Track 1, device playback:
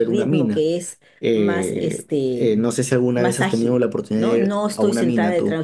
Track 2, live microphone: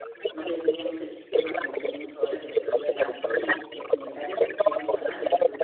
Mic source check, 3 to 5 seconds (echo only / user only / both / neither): both